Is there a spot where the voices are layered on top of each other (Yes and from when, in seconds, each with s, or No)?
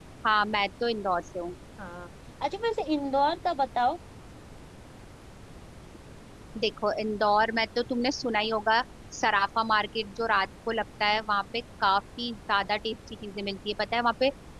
No